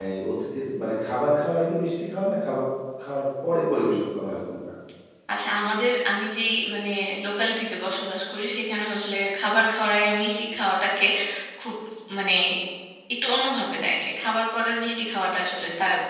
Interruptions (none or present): none